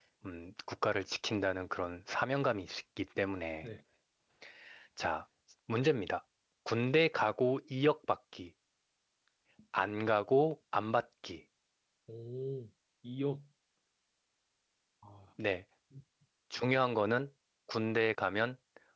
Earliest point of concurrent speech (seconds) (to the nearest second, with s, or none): none